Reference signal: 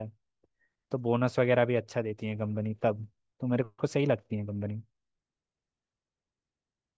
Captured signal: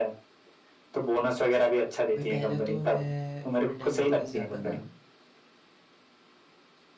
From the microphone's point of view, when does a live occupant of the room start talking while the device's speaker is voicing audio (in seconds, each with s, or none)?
2.1 s